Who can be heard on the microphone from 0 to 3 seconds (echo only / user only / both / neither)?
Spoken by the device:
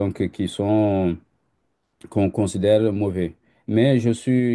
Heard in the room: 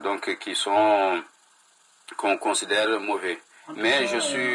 echo only